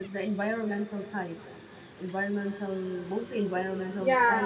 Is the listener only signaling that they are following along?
No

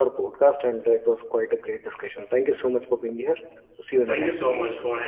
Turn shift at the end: Yes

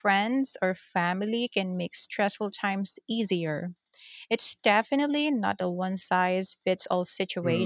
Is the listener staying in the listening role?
No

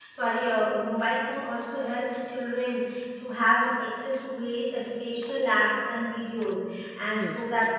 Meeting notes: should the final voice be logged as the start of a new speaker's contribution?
No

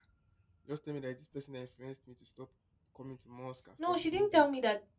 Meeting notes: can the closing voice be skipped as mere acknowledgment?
No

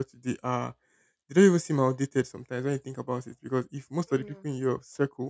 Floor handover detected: No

